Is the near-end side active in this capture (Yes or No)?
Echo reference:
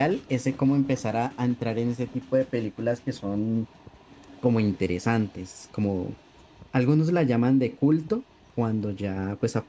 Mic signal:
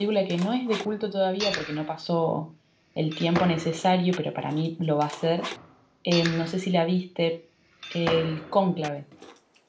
Yes